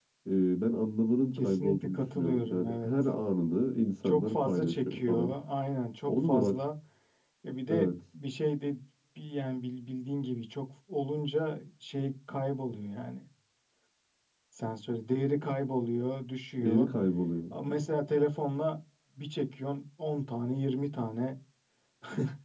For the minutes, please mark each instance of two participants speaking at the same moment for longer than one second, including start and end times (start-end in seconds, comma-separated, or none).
1.3-3.1, 4.0-5.4